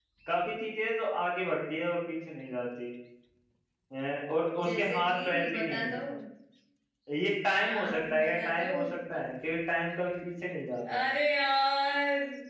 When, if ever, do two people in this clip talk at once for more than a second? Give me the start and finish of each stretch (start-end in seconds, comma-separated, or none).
4.6-6.0, 7.5-8.7